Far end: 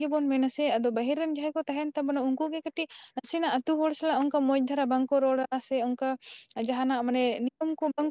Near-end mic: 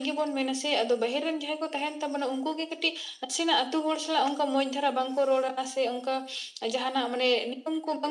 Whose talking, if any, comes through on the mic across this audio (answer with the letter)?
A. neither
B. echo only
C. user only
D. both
B